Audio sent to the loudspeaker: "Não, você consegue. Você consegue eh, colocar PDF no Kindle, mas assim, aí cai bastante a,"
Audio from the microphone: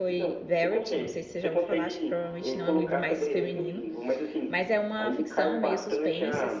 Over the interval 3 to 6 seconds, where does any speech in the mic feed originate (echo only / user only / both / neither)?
both